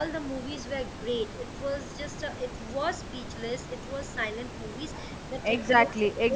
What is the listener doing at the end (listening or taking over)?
taking over